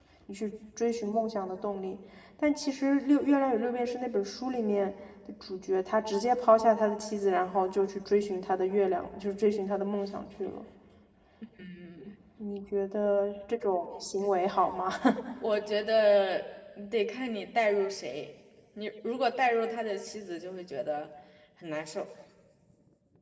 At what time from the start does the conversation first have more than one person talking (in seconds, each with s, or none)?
none